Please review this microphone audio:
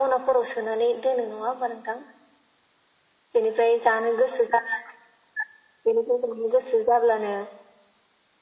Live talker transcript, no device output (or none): none